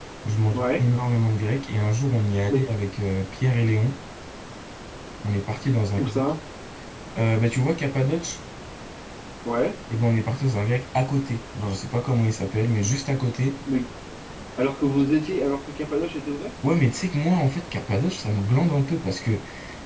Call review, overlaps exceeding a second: none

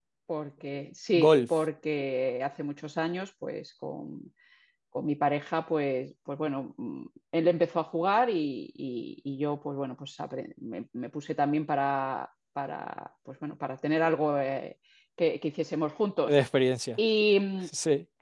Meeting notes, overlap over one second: none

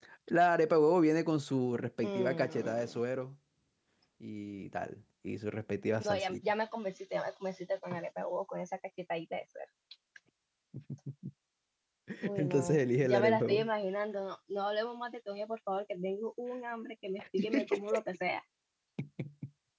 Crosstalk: present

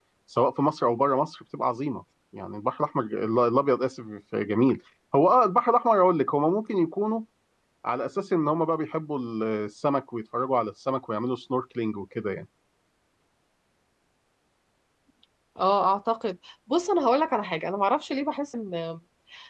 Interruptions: none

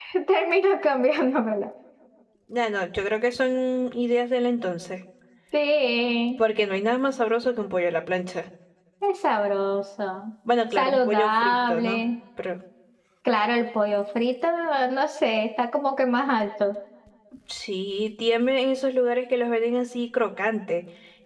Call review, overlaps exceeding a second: present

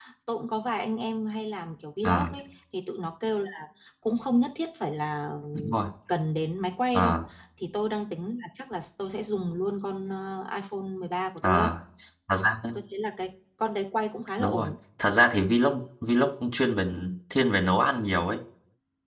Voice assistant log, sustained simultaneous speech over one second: none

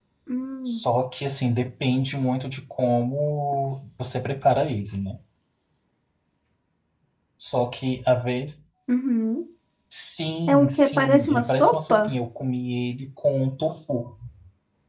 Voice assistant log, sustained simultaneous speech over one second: present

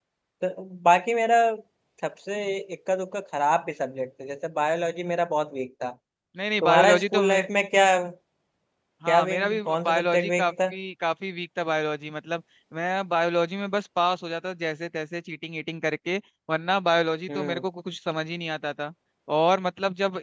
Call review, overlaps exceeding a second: present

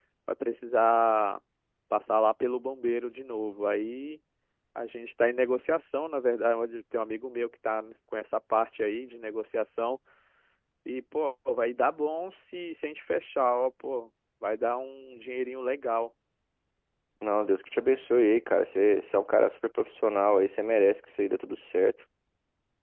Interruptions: none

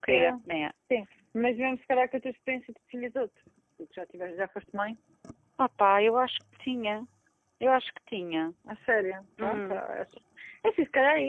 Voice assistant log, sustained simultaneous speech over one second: none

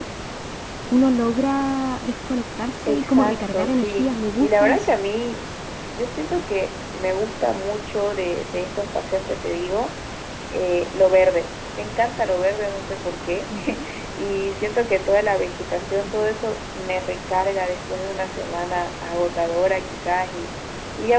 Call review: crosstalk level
present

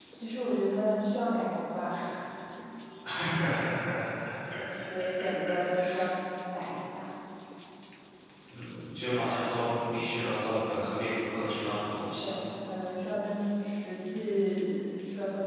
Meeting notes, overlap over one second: none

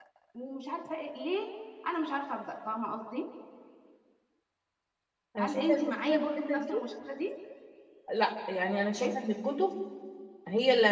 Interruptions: present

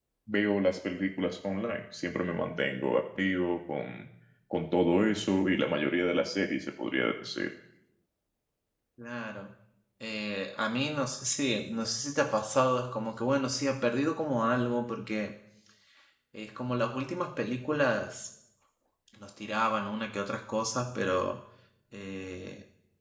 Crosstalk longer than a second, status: none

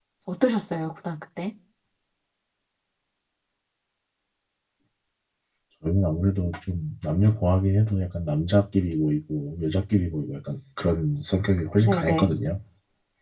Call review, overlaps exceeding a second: none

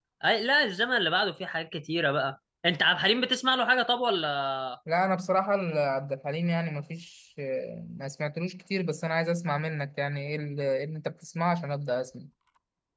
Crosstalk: none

